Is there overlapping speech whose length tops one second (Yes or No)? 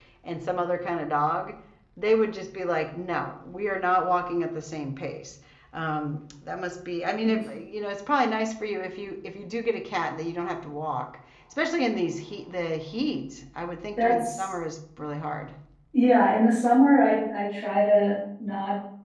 No